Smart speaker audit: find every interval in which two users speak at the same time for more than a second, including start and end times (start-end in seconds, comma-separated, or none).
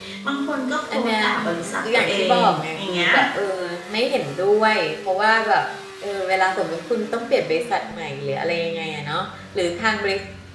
0.9-3.1